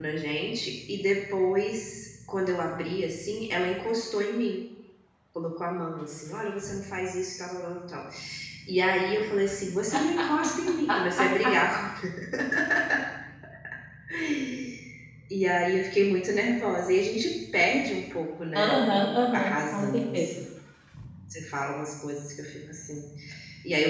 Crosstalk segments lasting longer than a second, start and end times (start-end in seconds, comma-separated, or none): 18.6-20.3